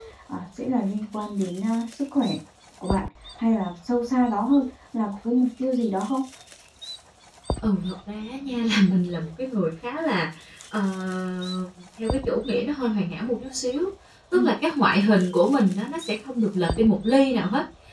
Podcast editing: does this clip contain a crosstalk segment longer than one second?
No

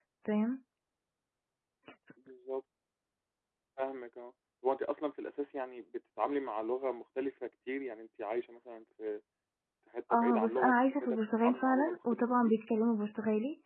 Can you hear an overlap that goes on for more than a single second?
Yes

